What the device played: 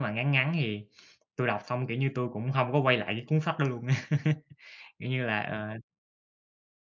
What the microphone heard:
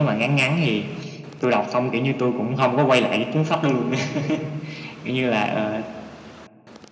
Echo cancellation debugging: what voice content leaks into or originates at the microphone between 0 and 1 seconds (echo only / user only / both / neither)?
echo only